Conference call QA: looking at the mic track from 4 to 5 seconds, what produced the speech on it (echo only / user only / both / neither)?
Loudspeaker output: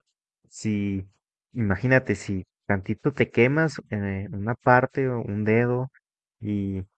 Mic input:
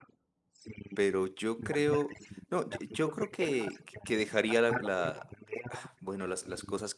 both